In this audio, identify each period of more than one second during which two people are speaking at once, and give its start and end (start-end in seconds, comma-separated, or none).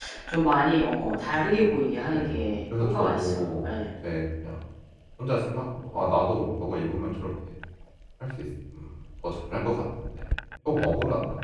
1.2-3.7